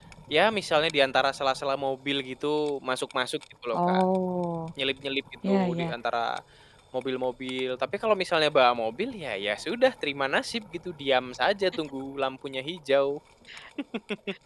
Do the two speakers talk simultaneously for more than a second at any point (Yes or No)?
No